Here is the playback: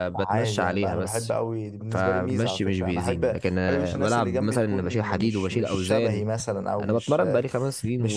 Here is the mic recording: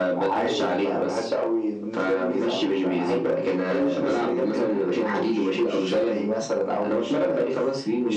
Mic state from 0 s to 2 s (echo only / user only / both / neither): echo only